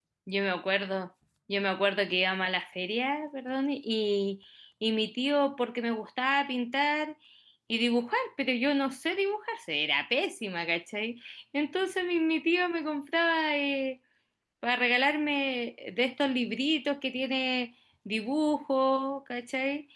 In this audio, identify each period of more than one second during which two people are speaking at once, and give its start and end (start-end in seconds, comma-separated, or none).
none